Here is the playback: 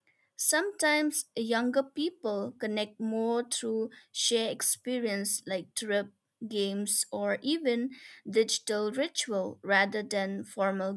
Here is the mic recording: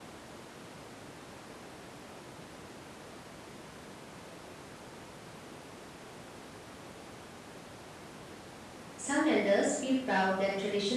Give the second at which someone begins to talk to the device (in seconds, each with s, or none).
9.0 s